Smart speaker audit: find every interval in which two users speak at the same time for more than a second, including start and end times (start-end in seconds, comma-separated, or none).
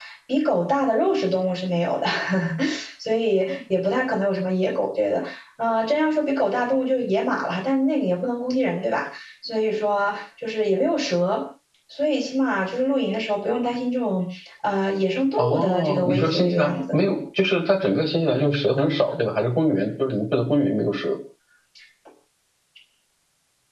15.4-17.0